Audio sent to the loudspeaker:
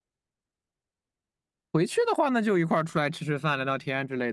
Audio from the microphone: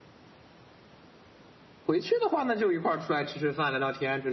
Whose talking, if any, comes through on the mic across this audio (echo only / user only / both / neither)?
echo only